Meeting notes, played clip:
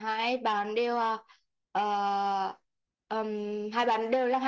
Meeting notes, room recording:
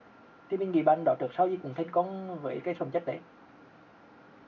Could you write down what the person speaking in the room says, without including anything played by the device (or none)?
thì mình nghĩ bạn đó trước sau gì cũng thành công với cái phẩm chất đấy